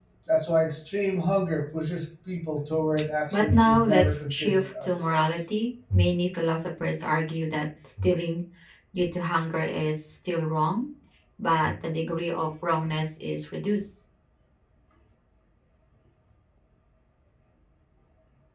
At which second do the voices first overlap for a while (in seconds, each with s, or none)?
3.3 s